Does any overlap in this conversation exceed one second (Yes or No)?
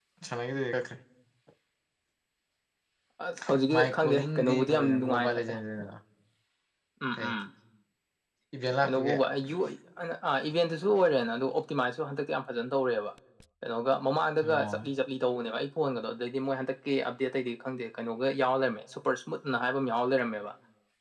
Yes